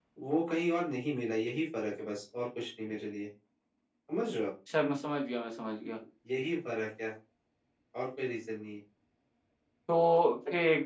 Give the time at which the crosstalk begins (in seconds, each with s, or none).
none